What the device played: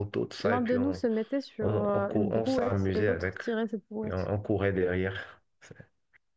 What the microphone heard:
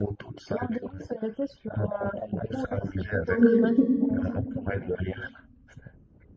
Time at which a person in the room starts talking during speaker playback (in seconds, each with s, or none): 3.2 s